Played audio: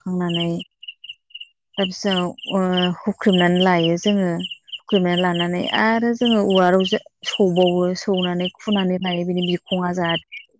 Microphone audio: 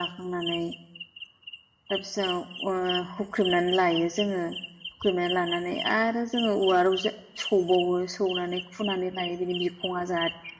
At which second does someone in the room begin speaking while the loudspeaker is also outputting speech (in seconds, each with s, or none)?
none